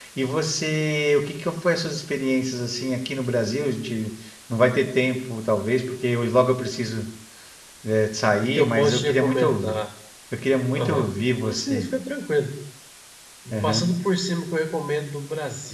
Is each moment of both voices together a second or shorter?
No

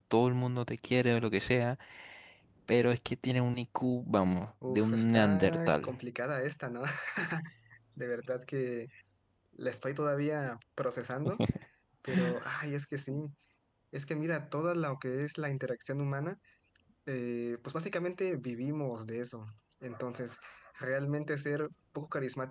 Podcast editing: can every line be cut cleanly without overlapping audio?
No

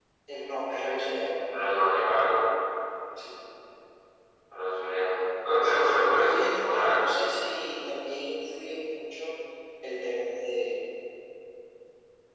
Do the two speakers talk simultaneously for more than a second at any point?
Yes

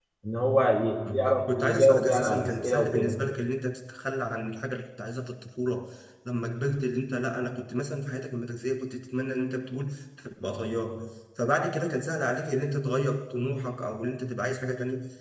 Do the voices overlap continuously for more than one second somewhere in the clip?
Yes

